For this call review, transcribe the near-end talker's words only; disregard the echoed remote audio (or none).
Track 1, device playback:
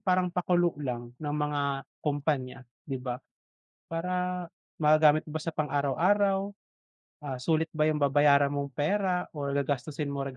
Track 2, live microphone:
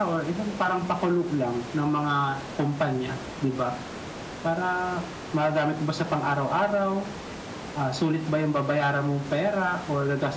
none